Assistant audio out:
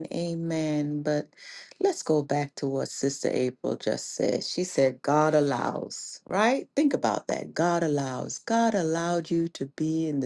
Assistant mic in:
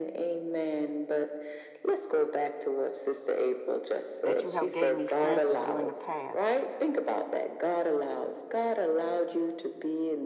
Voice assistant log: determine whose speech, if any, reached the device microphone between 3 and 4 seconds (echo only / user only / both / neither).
echo only